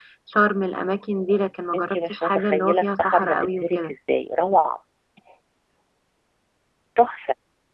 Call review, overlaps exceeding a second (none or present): present